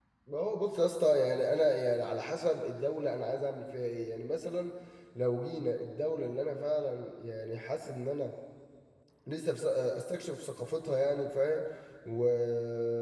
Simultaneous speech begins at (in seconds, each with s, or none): none